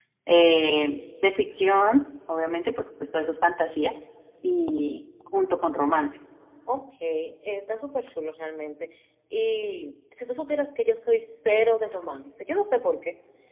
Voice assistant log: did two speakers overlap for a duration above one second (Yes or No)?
No